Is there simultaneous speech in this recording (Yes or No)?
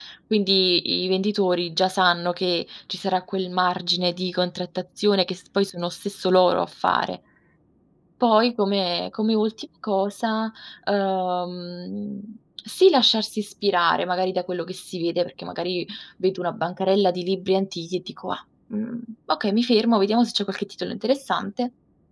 No